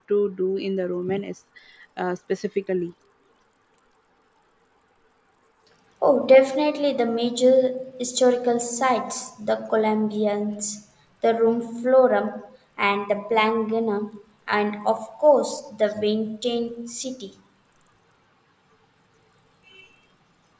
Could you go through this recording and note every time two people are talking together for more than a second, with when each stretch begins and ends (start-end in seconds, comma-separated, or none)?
none